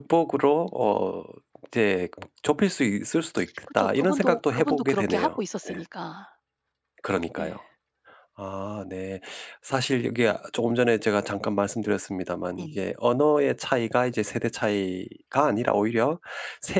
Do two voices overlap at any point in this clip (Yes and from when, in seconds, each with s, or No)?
Yes, from 3.7 s